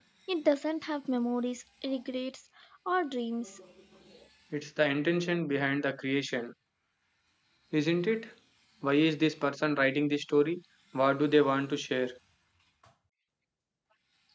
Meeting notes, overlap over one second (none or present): none